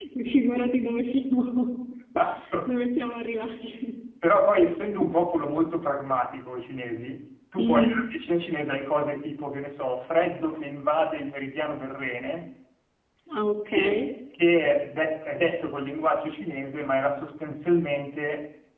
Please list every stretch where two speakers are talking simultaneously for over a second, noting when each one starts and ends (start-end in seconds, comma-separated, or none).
none